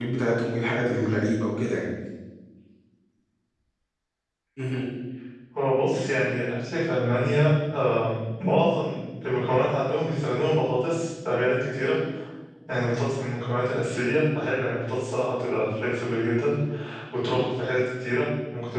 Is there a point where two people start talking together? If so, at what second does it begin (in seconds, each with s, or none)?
none